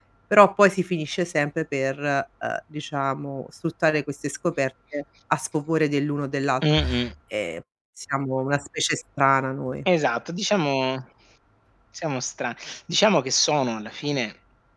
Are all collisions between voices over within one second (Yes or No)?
Yes